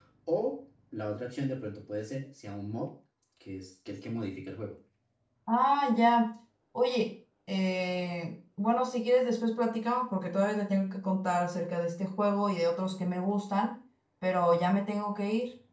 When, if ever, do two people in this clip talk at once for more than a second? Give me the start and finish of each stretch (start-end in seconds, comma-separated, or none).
none